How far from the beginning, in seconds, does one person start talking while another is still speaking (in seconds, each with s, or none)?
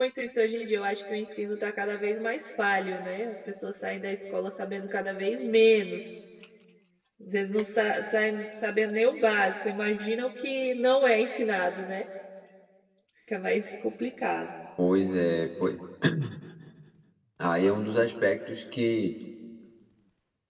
none